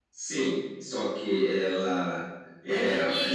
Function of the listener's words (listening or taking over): taking over